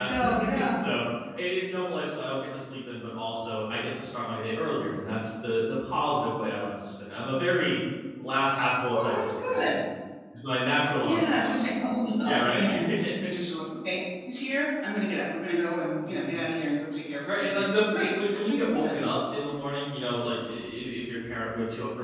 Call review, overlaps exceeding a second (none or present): present